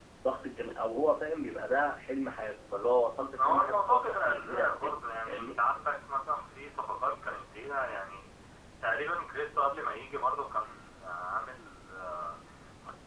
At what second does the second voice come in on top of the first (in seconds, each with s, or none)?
3.3 s